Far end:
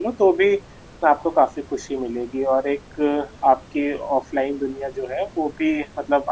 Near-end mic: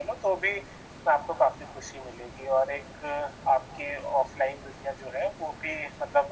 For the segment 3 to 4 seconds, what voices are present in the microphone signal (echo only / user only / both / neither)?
echo only